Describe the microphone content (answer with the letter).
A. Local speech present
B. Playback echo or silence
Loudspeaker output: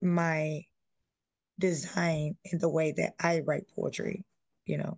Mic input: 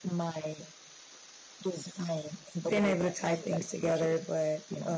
A